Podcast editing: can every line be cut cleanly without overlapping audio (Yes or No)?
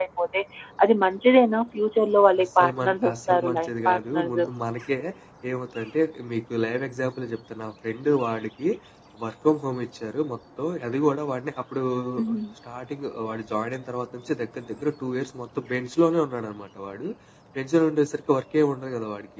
No